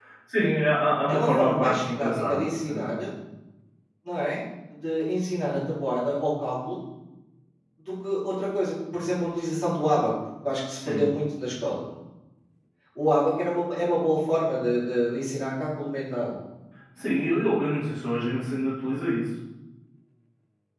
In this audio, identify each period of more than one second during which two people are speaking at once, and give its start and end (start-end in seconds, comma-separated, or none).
1.1-3.0